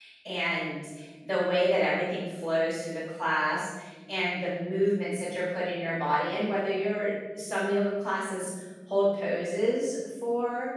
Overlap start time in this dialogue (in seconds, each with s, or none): none